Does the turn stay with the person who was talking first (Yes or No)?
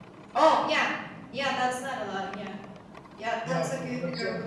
No